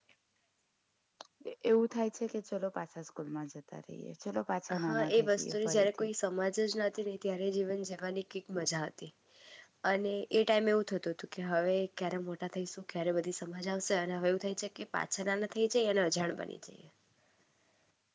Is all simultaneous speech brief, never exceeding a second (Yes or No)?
No